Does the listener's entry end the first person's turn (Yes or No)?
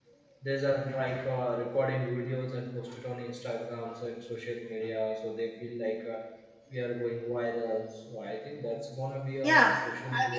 Yes